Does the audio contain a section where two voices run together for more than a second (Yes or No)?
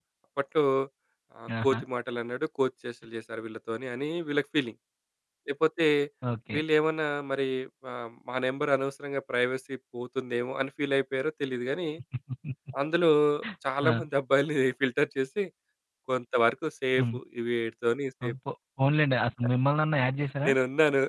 No